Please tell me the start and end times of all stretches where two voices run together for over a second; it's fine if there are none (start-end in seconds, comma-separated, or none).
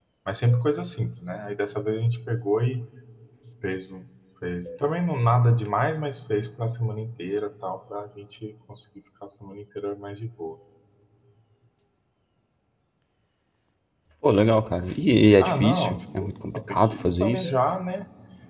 15.4-17.4